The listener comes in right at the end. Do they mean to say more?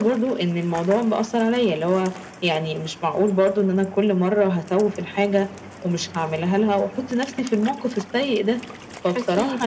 No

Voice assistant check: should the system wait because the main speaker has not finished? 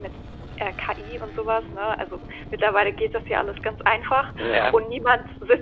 Yes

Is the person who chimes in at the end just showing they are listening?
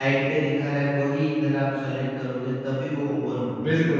No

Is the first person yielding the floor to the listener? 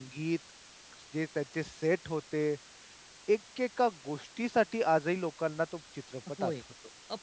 Yes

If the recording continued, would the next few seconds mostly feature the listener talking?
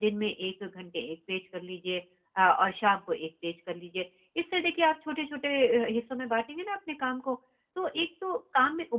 No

